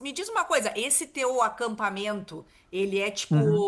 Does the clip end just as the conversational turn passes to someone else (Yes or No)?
No